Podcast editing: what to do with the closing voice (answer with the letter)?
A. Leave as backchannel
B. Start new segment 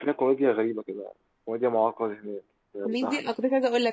B